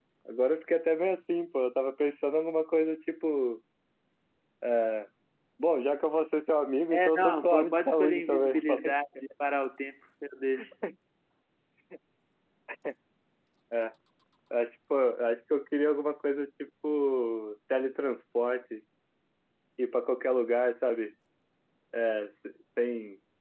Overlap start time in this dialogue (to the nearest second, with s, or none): 7 s